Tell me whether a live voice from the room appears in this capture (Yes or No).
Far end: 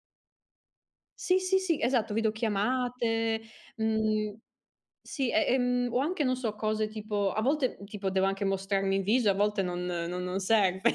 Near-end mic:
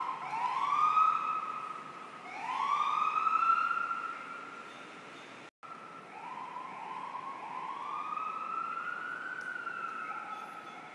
No